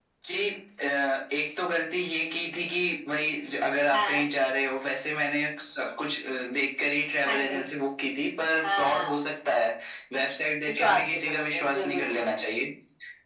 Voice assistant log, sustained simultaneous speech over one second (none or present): present